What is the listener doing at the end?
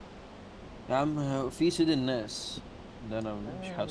taking over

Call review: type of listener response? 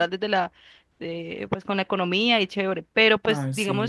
listening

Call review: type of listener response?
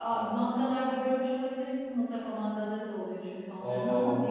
listening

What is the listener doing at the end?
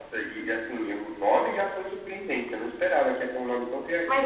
taking over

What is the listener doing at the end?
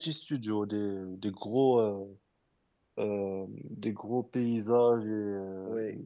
listening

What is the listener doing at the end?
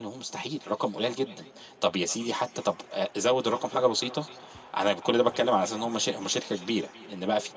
listening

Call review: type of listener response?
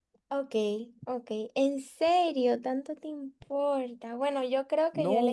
taking over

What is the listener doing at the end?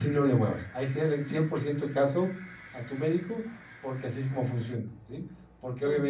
listening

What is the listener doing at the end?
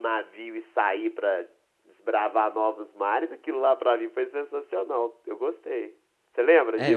taking over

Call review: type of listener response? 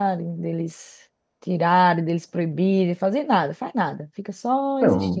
taking over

